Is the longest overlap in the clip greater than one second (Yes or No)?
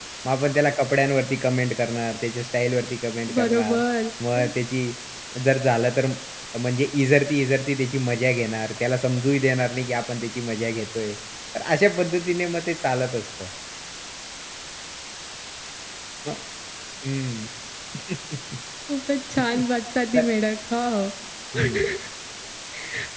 No